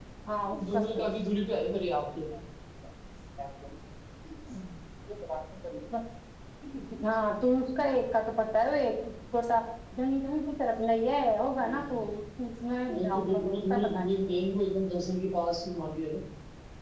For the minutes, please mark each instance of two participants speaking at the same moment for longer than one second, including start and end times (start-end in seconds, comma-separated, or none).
13.0-14.3